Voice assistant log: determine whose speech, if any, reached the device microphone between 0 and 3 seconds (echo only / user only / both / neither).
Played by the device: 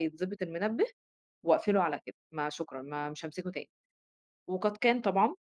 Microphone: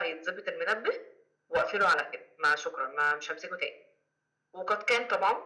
echo only